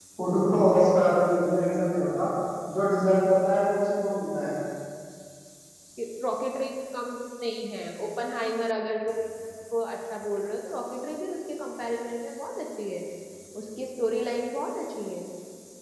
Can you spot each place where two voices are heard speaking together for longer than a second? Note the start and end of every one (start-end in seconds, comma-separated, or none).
none